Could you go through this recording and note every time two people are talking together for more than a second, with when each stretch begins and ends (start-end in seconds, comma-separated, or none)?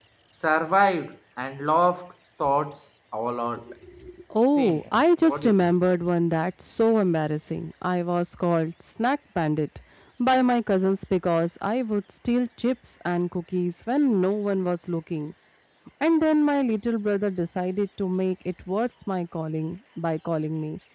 4.5-5.7